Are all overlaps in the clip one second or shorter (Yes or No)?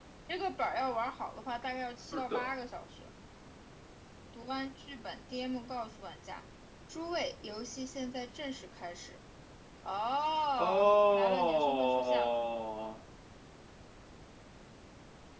No